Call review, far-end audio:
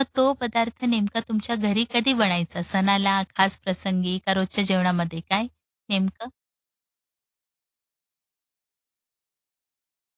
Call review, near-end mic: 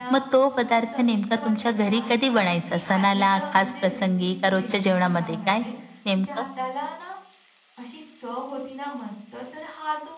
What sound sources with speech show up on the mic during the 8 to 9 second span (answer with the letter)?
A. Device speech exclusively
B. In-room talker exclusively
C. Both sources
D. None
B